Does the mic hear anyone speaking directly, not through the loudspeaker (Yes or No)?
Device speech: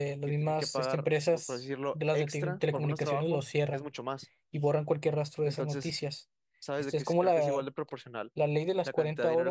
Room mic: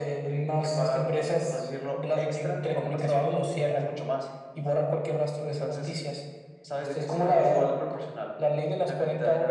No